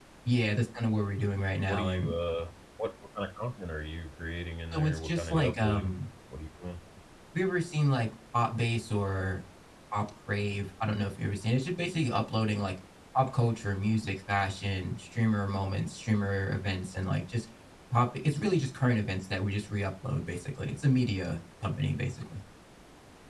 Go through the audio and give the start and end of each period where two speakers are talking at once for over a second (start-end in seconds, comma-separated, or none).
4.7-6.0